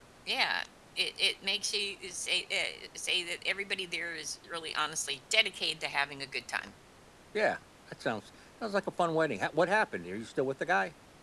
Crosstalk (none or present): none